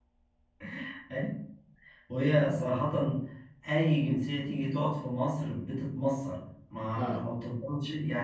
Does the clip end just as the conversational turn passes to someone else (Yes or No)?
No